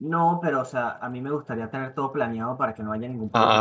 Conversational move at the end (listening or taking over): listening